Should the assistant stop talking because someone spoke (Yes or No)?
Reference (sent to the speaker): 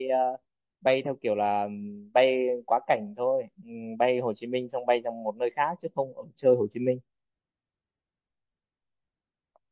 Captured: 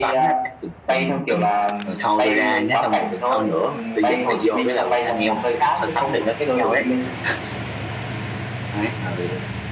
Yes